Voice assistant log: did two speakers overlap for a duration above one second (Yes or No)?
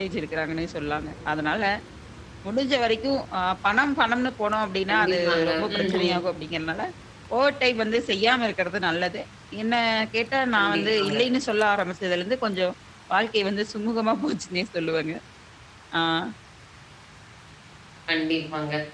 Yes